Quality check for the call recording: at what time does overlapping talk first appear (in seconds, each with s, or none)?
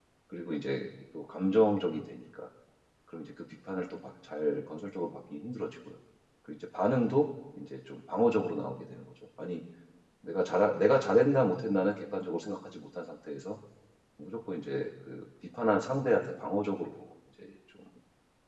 none